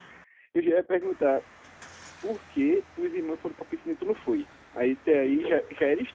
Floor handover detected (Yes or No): No